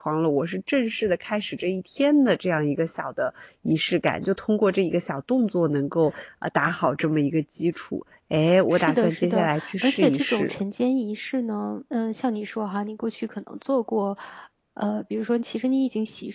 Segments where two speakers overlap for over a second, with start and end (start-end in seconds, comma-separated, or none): 8.7-10.5